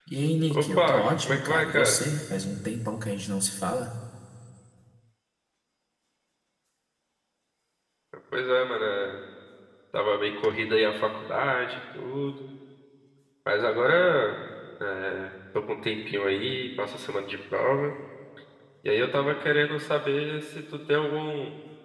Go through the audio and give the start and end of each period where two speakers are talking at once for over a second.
0.6-2.0

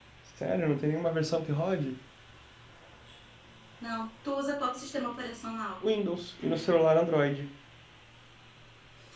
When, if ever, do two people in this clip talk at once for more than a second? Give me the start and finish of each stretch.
none

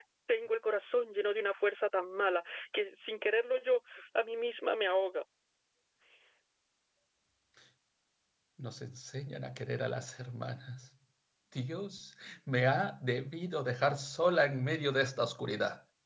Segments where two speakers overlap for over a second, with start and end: none

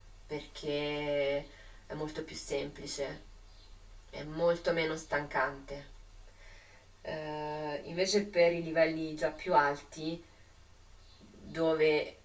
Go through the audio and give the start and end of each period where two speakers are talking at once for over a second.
none

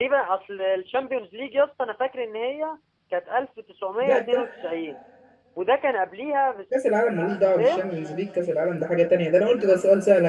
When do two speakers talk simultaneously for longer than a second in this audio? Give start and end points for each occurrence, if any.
none

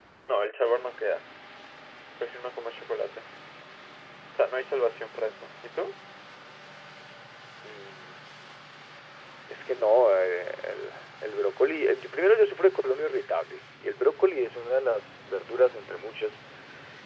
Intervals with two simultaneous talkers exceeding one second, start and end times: none

